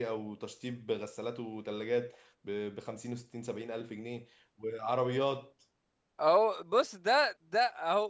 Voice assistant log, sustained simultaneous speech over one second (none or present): none